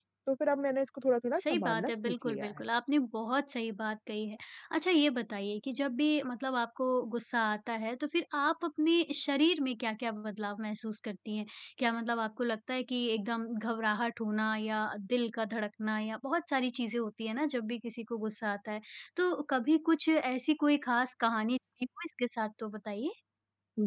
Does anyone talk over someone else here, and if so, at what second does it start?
1.4 s

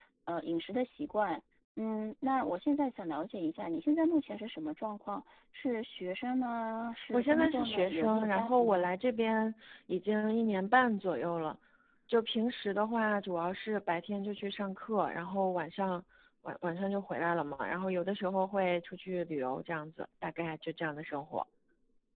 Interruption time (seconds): 7.0 s

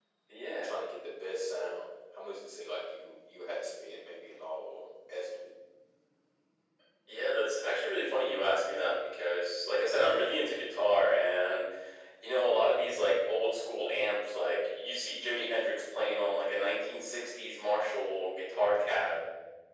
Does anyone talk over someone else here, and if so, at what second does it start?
none

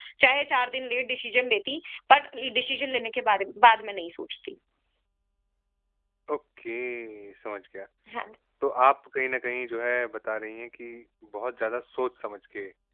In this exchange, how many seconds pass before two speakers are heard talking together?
none

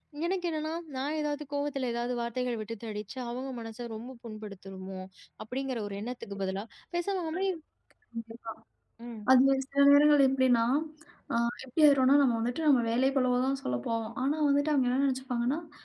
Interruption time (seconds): none

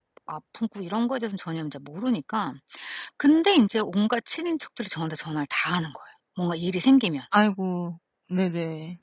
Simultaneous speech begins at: none

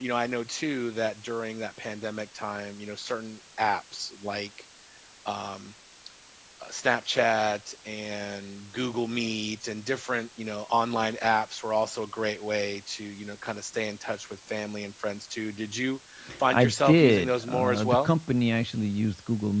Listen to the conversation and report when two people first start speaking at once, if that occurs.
16.5 s

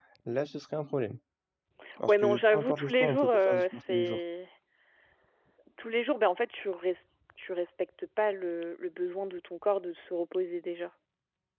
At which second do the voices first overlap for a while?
2.1 s

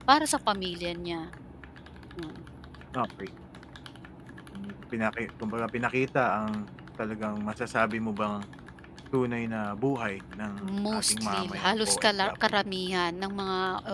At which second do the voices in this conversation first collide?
10.6 s

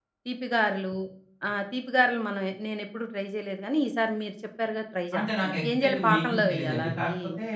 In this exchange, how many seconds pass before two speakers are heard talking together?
5.1 s

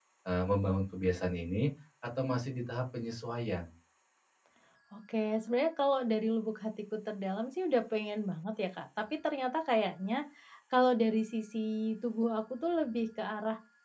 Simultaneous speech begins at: none

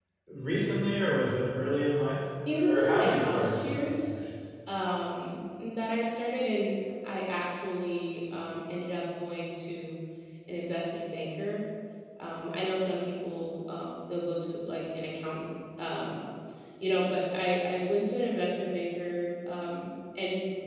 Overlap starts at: 2.5 s

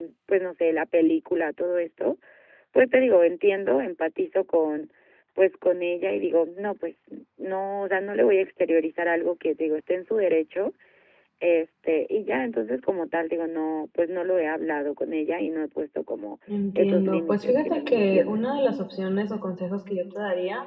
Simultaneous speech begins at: 16.8 s

